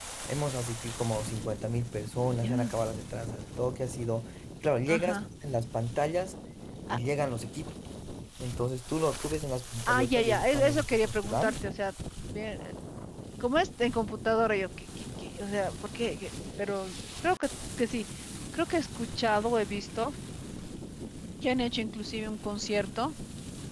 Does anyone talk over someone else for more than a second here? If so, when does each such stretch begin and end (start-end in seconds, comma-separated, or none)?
9.9-11.6